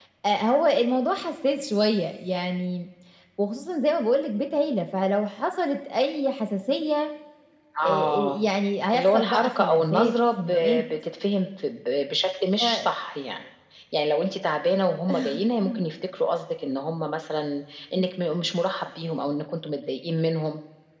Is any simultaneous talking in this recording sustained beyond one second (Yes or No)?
Yes